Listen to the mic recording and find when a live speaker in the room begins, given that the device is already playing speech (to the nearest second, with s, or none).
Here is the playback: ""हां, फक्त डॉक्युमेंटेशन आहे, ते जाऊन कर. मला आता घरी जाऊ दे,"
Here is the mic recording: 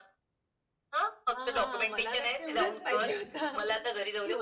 1 s